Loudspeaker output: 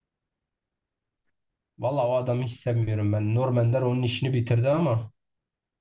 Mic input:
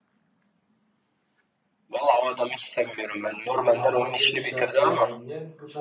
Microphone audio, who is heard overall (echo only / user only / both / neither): both